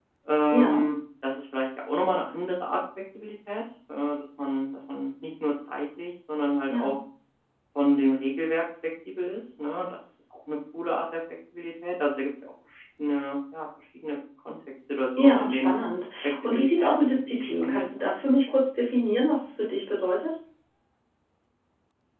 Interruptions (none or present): present